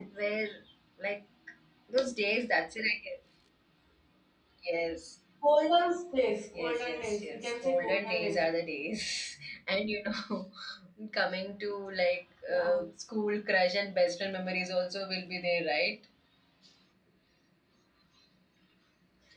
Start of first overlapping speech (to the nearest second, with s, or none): 7 s